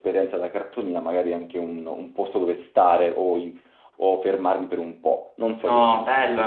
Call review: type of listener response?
taking over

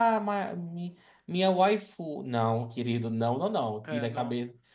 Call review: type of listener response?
listening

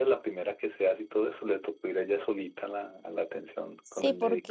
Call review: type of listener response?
taking over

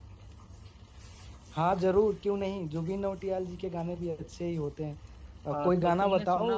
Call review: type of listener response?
taking over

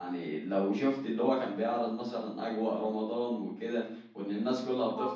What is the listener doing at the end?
listening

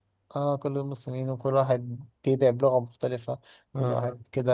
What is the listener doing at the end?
listening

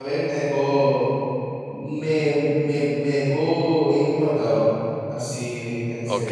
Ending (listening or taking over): taking over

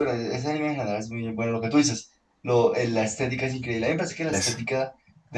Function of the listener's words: listening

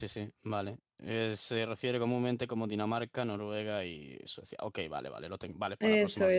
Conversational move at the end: taking over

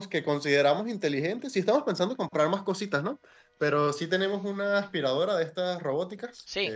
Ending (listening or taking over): taking over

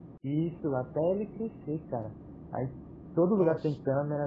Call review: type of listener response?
listening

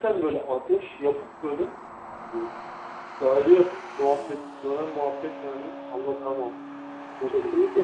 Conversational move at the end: taking over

